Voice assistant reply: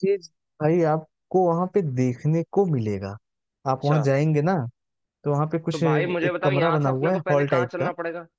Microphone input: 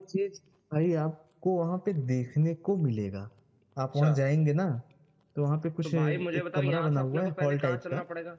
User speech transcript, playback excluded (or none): none